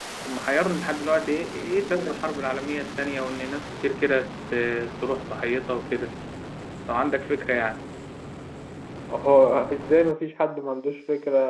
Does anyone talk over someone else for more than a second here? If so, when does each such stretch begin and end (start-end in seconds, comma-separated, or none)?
none